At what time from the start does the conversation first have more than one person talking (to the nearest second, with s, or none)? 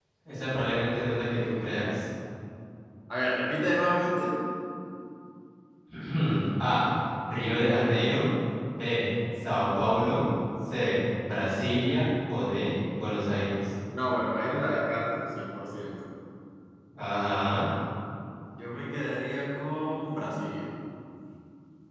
none